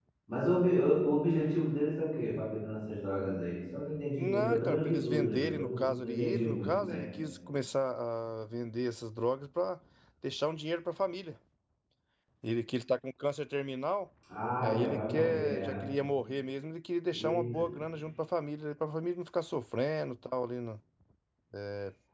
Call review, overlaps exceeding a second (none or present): present